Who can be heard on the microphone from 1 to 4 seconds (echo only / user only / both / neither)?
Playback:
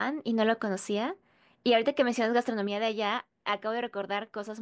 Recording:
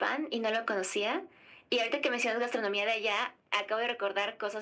echo only